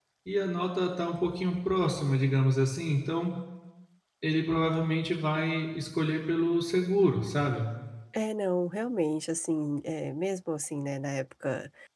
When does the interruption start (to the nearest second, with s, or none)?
none